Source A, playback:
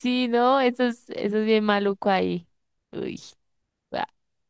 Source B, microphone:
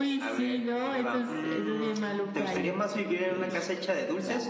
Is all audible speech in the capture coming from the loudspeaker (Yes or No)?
No